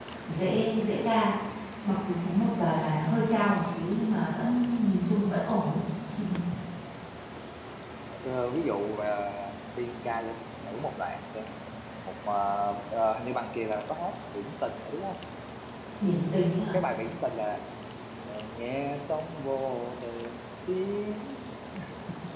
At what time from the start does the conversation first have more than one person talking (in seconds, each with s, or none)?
none